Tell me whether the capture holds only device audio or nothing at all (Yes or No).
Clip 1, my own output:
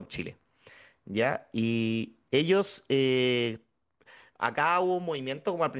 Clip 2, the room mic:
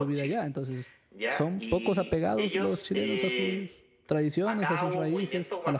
No